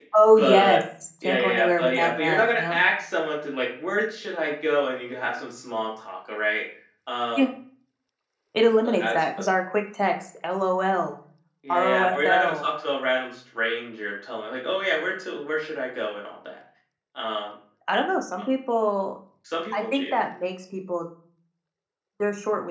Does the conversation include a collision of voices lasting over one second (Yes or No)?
Yes